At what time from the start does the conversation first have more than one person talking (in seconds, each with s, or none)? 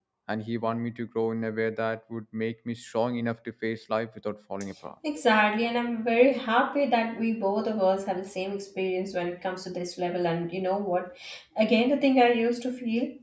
none